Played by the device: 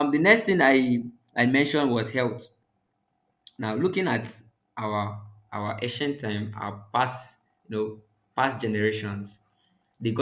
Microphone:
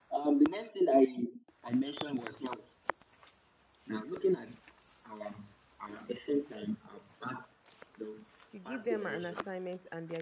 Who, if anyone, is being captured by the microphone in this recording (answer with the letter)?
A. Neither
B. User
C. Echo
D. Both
D